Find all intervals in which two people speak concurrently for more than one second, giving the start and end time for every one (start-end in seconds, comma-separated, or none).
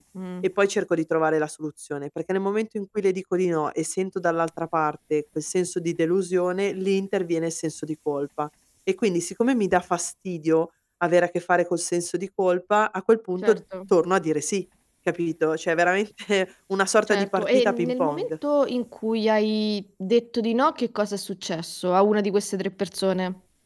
17.1-18.3